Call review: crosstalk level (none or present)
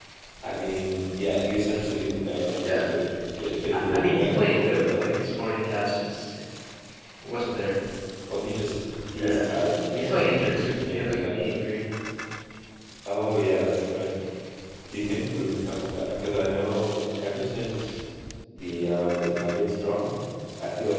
present